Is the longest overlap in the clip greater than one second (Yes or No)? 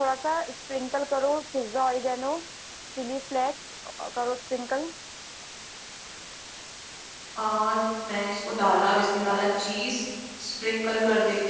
No